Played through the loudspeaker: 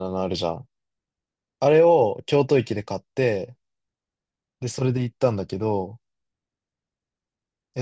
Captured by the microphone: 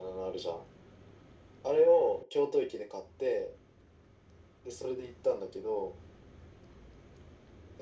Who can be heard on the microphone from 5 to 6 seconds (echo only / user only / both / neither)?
echo only